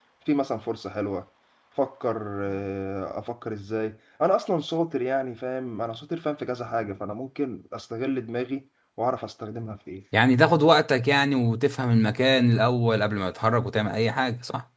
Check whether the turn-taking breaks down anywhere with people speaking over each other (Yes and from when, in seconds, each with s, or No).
No